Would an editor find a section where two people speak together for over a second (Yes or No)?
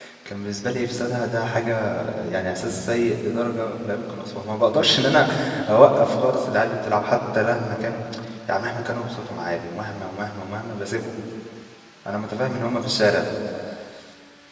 No